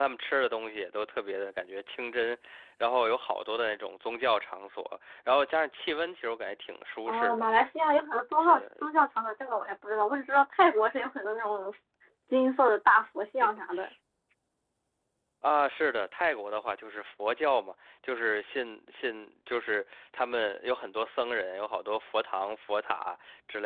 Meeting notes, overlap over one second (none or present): none